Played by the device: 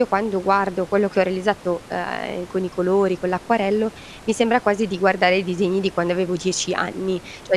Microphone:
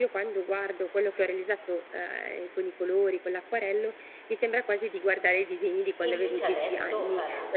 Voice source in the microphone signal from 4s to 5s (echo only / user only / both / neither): echo only